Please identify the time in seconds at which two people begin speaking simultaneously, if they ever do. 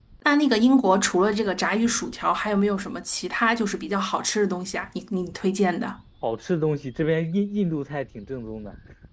none

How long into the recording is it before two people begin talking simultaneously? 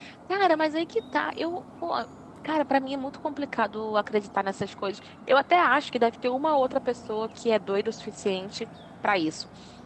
none

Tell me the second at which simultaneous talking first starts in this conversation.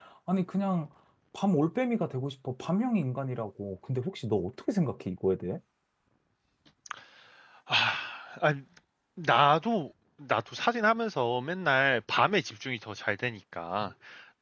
none

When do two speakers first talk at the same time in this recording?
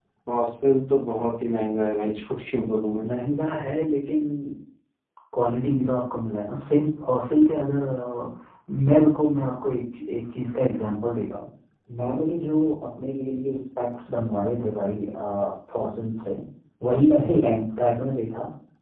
none

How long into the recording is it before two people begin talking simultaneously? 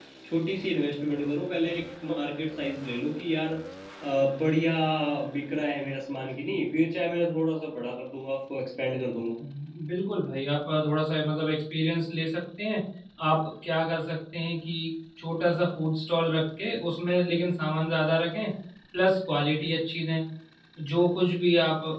none

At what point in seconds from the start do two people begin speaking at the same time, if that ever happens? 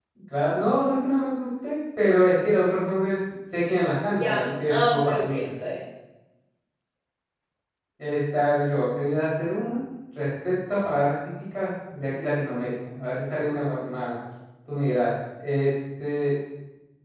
4.1 s

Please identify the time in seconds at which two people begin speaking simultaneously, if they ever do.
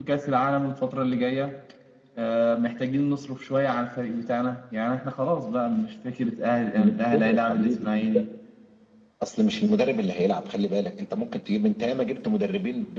6.8 s

